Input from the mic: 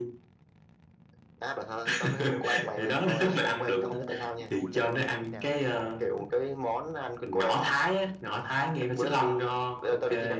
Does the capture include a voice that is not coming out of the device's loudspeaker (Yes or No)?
Yes